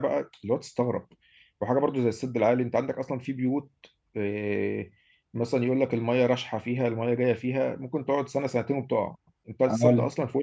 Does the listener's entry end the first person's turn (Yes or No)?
No